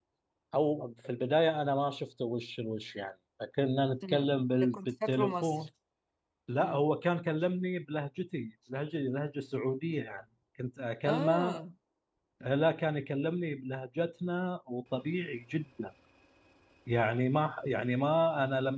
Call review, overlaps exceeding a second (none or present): present